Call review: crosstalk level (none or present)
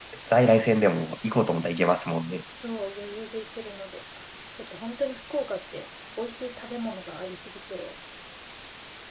none